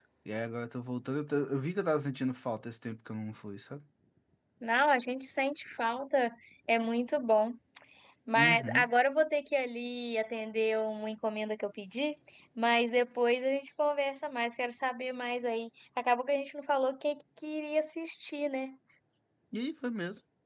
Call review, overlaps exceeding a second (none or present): none